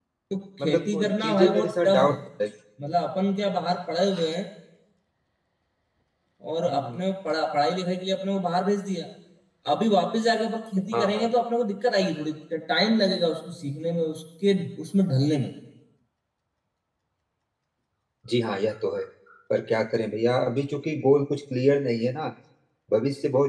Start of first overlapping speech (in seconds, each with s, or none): 0.6 s